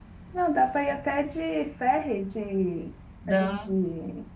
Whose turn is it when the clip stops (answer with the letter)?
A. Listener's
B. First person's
B